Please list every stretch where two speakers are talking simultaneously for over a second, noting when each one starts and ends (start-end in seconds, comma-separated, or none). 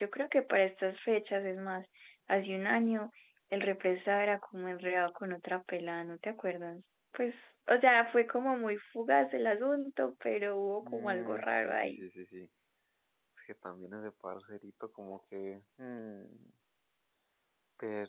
10.8-12.0